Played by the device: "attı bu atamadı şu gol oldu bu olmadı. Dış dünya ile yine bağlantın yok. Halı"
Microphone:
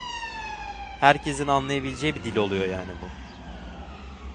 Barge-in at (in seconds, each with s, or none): 1.0 s